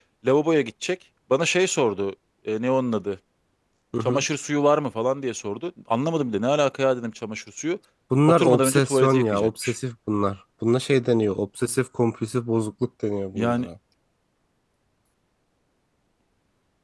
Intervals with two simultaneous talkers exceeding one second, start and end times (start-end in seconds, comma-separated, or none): 8.3-9.8